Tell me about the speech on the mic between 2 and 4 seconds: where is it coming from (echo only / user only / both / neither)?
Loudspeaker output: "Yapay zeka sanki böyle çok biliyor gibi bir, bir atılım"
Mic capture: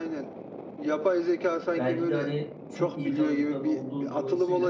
both